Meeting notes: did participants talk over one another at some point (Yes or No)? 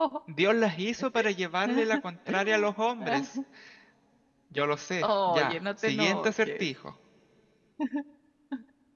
Yes